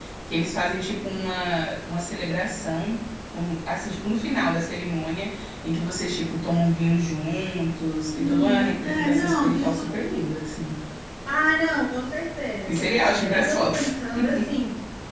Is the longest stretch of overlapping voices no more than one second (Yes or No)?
No